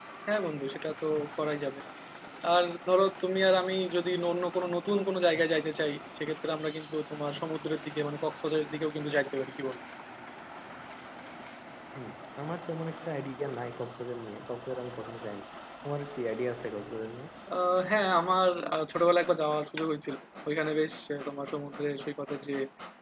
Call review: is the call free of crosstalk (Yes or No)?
Yes